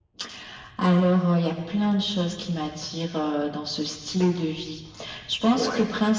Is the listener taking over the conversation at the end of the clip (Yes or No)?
No